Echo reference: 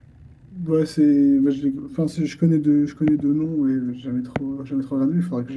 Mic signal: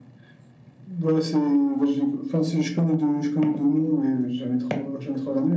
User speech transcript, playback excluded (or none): none